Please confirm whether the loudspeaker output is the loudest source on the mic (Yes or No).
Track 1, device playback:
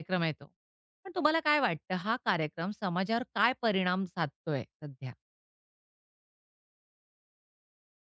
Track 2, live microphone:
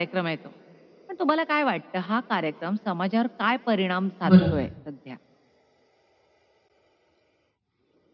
No